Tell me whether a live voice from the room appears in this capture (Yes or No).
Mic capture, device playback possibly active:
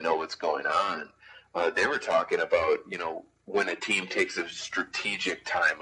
No